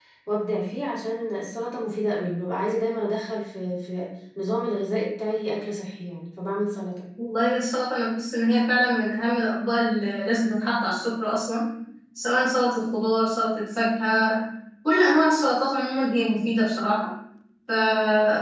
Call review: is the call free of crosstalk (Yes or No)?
Yes